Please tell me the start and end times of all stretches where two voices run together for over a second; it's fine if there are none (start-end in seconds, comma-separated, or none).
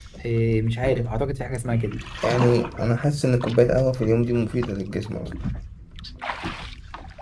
none